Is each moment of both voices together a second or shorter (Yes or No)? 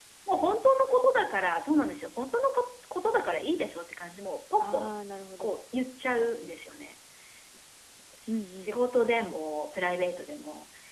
Yes